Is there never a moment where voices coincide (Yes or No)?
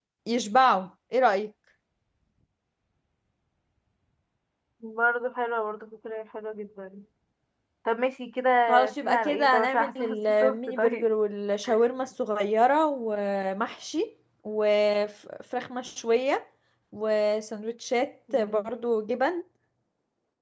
No